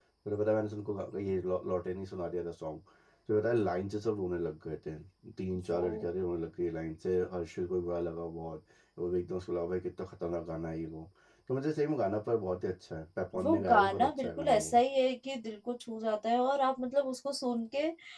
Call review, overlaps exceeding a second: present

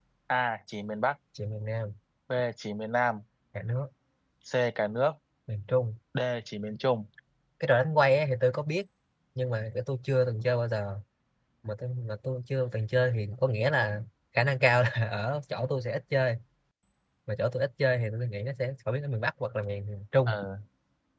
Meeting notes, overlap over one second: none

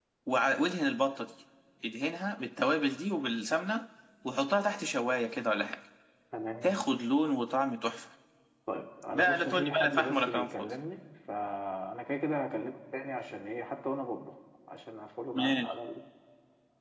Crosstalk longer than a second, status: present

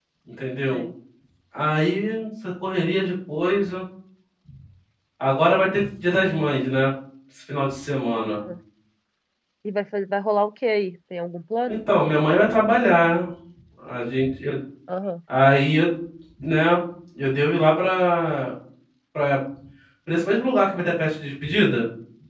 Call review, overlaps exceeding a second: none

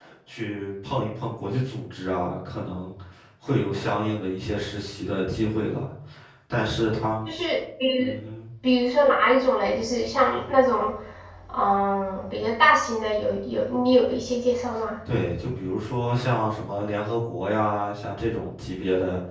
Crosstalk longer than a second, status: none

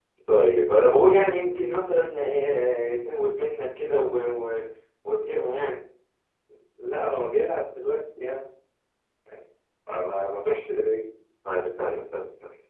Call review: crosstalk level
none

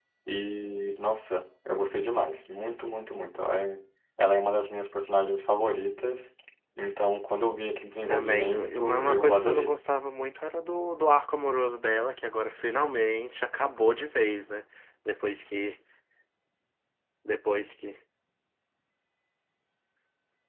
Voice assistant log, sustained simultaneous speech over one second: present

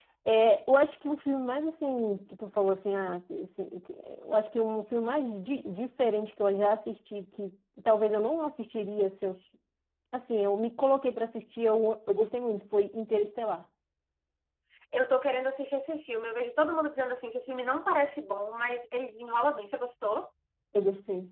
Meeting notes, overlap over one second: none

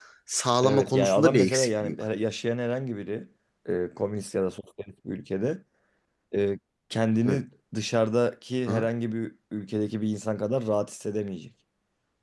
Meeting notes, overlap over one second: present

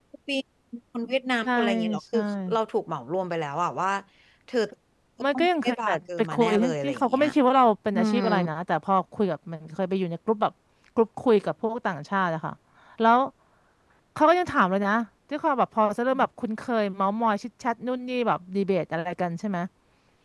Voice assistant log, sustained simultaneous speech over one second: present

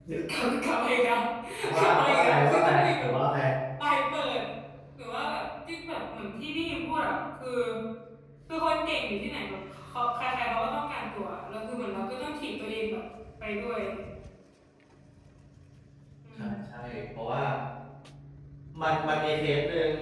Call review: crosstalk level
present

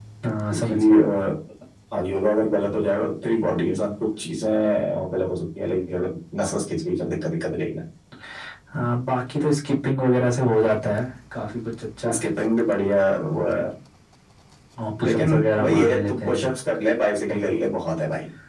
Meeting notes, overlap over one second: present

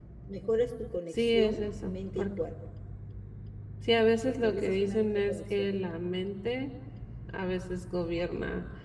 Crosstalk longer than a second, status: present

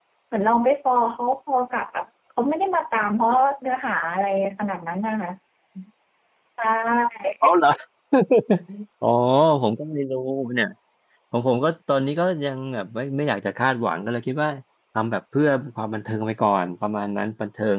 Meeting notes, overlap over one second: none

